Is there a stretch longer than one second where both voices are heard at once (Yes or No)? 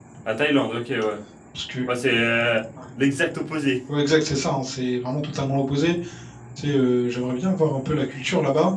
No